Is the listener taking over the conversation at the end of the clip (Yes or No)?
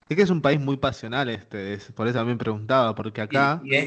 Yes